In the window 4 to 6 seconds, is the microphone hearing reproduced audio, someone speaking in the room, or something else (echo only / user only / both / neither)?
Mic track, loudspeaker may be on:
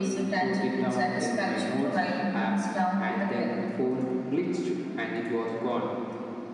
echo only